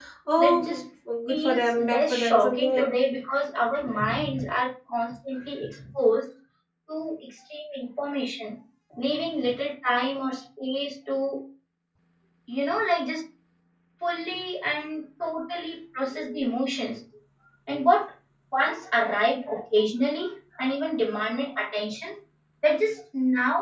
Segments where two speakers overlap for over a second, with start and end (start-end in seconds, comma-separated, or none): 1.3-2.9